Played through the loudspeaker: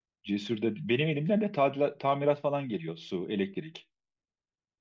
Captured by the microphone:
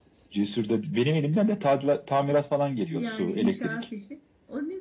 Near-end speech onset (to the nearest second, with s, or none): 3 s